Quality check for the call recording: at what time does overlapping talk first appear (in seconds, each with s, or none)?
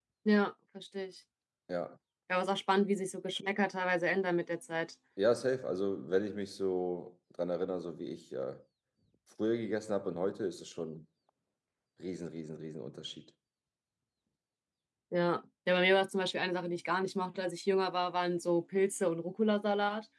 none